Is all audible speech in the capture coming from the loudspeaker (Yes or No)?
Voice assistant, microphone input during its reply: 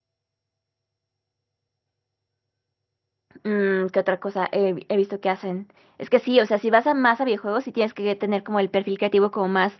No